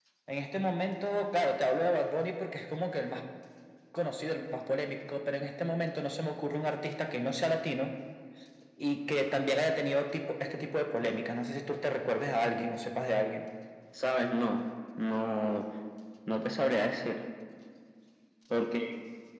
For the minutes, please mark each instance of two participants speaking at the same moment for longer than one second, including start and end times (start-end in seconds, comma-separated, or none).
none